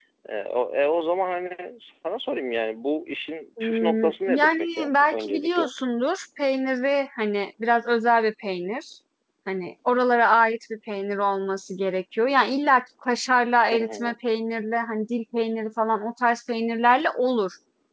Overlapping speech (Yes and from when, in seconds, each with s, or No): Yes, from 3.6 s